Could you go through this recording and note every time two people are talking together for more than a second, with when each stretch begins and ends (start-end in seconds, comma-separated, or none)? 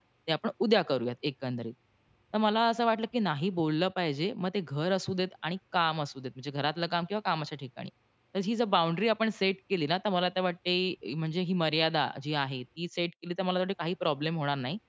none